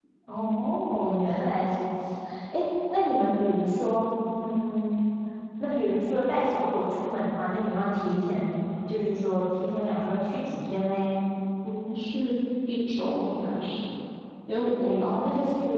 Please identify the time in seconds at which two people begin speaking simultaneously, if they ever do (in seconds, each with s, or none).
none